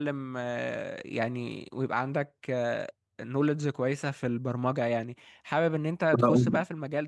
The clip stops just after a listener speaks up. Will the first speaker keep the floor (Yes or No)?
Yes